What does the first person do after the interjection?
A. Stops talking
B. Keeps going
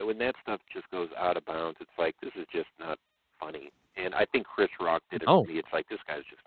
B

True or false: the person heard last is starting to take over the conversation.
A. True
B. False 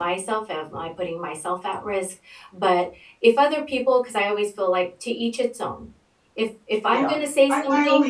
A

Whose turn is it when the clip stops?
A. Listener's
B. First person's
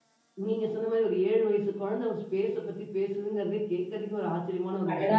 A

